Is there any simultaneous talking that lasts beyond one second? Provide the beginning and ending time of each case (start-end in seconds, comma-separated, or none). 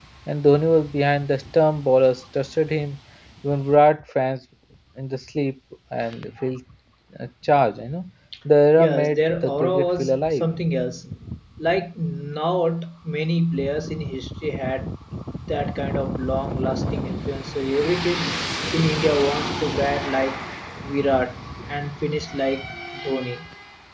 8.8-10.5